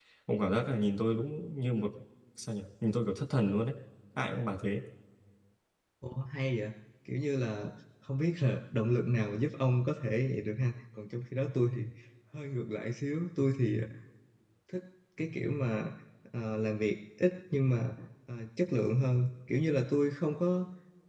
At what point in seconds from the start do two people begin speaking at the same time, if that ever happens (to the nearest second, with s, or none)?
none